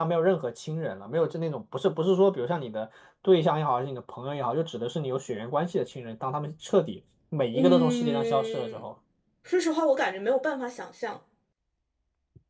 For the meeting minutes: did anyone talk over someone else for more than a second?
Yes, from 7.5 s

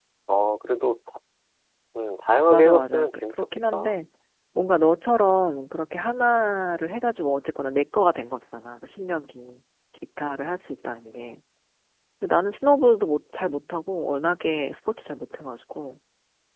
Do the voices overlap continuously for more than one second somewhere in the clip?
Yes, from 2.5 s

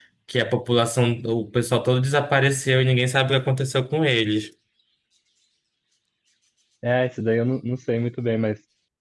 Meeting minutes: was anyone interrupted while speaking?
No

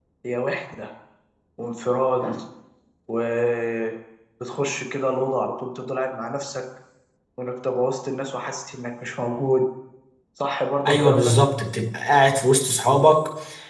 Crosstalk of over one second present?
No

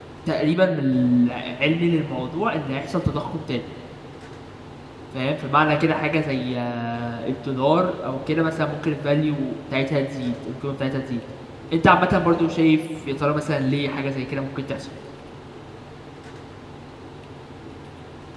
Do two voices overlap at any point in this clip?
No

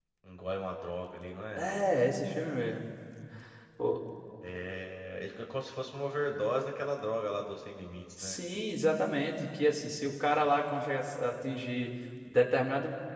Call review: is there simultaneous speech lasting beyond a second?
No

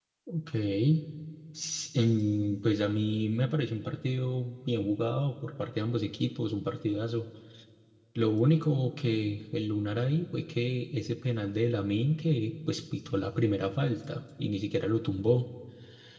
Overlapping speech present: No

